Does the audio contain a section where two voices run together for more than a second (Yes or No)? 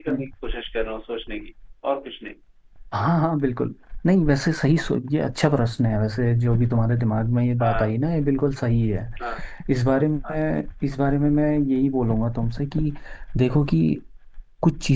No